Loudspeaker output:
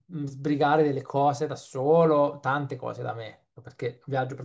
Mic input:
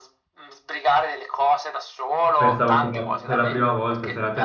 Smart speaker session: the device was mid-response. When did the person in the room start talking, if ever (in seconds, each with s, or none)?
2.3 s